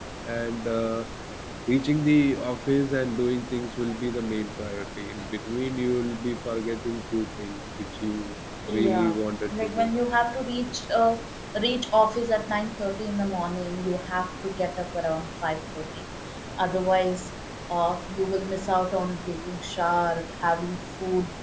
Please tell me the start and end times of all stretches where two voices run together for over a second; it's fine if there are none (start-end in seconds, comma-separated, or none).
8.7-9.9